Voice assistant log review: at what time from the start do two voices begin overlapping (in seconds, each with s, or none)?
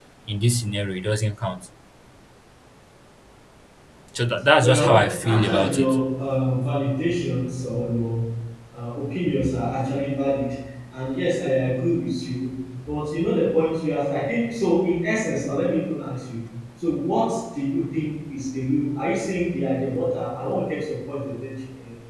4.6 s